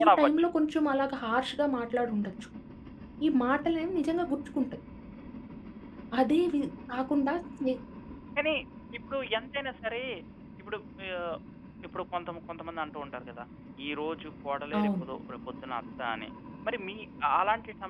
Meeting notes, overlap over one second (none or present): none